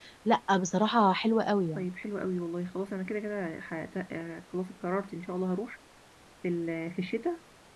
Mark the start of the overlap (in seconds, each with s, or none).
none